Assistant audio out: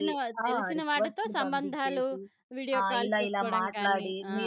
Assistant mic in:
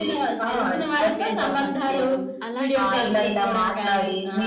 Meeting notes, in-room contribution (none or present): present